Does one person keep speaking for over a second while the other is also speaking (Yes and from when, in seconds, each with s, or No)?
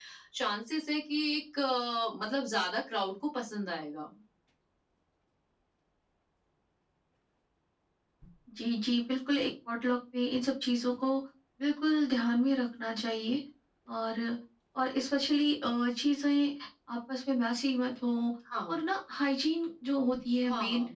No